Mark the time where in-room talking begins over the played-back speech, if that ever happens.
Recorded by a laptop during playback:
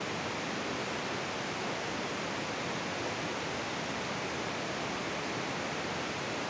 none

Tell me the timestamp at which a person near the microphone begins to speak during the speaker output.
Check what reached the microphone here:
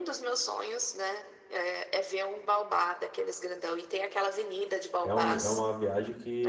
5.0 s

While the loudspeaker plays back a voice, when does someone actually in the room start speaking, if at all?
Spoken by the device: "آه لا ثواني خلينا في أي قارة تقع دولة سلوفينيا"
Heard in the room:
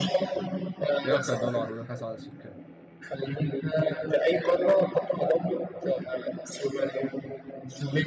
1.0 s

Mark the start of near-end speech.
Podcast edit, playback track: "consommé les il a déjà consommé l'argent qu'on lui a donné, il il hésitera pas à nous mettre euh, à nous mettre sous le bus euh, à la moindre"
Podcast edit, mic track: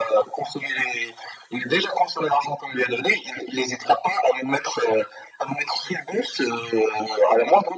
none

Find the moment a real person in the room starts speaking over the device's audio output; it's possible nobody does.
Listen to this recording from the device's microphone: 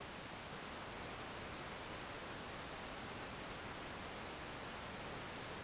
none

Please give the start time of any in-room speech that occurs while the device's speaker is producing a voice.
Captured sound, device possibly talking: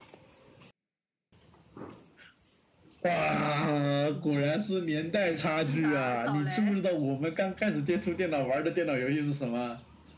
5.6 s

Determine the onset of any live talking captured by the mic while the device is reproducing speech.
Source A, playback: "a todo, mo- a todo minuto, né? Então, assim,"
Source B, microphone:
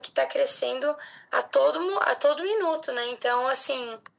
none

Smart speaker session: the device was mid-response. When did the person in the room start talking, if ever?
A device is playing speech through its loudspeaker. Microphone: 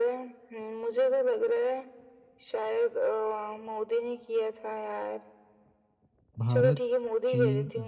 6.4 s

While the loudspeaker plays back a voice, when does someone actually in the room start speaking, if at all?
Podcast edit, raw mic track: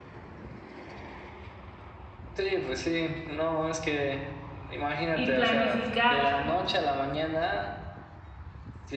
5.1 s

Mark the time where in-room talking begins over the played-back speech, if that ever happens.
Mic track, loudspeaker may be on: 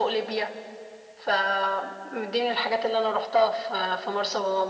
none

